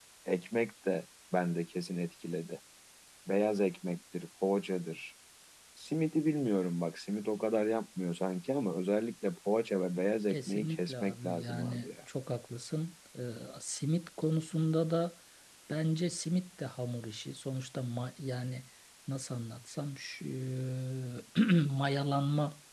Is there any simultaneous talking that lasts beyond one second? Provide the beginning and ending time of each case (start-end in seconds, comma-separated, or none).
10.3-11.9